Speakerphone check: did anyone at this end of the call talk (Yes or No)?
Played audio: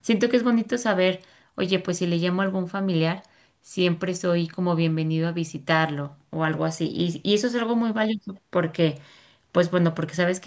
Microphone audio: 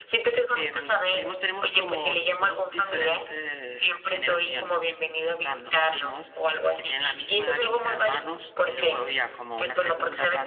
Yes